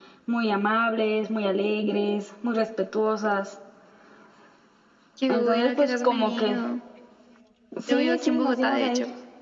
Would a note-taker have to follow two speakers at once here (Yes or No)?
Yes